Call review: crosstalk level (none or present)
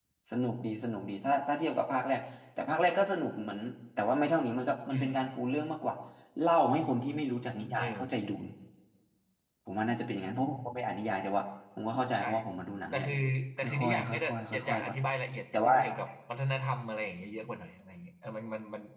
present